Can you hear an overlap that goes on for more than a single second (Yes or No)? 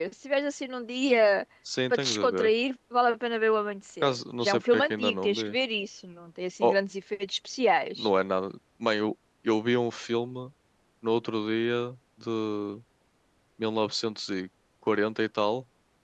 Yes